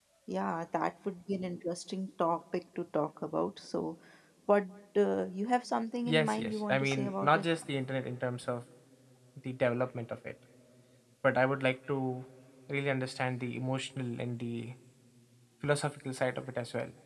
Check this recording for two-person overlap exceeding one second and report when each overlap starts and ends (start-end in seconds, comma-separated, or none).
6.0-7.4